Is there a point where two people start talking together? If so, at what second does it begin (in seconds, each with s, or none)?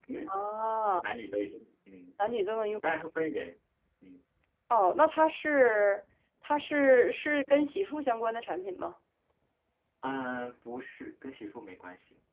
none